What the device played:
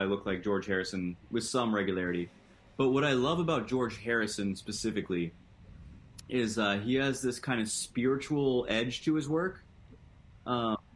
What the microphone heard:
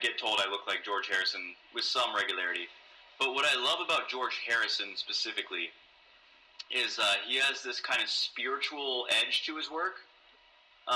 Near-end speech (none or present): none